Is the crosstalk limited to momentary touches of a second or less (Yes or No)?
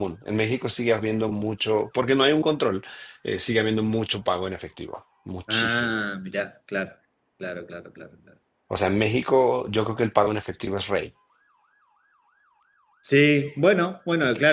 Yes